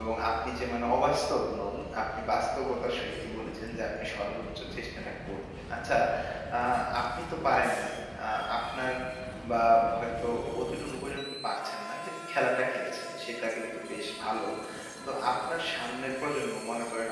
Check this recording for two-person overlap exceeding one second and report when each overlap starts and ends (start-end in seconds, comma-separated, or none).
none